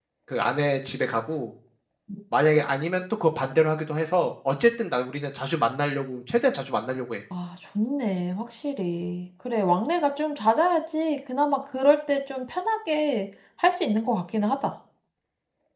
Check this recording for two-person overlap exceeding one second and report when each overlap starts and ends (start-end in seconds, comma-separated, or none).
none